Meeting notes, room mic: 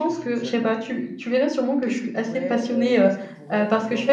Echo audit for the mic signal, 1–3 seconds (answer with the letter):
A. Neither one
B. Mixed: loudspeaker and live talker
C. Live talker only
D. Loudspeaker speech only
B